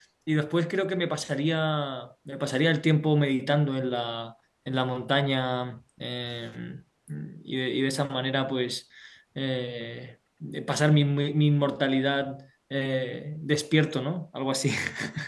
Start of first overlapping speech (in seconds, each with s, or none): none